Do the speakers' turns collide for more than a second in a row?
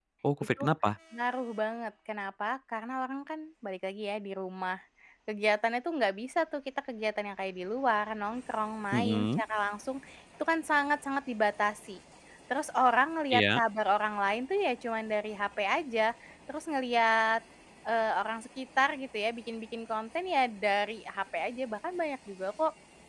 No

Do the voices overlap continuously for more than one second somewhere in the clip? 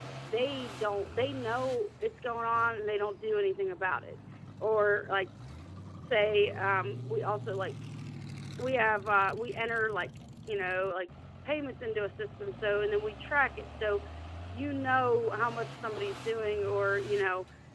No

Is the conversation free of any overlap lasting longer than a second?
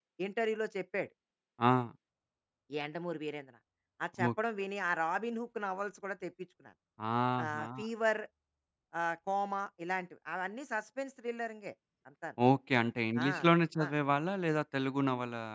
Yes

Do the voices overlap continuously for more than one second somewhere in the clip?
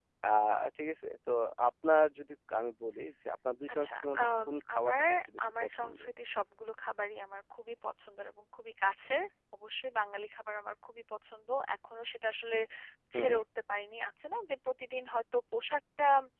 Yes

